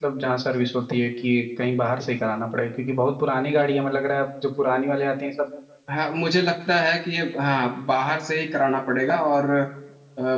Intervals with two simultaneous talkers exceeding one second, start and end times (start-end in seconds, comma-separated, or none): none